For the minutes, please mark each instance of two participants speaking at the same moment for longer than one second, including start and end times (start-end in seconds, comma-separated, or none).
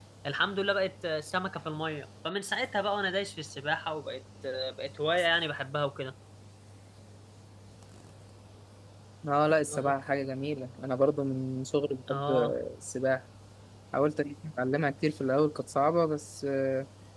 none